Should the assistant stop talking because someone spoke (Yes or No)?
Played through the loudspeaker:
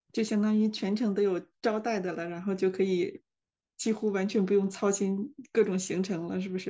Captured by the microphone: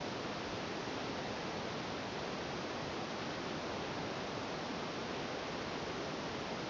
No